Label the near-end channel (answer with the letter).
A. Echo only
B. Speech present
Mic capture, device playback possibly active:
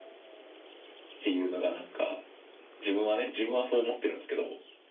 A